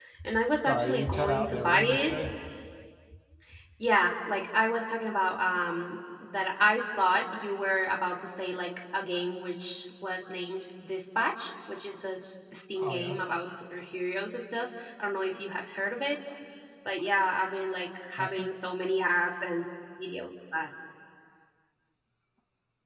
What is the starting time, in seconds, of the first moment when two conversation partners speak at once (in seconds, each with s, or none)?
0.6 s